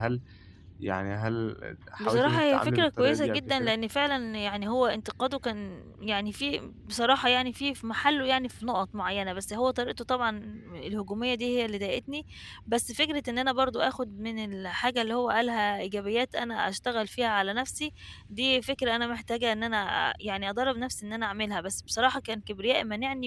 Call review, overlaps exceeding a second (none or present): present